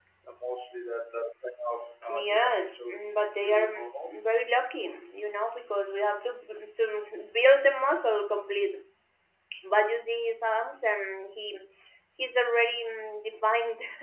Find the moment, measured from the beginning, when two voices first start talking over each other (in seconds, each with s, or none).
2.1 s